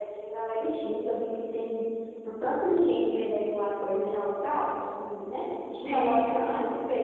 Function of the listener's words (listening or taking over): listening